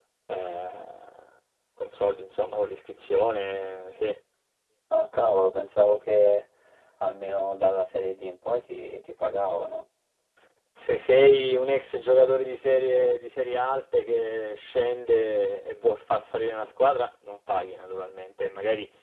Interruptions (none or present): none